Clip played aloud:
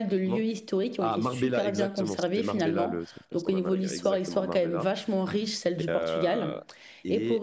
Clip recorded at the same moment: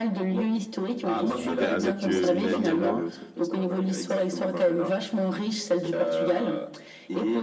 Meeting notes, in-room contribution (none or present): present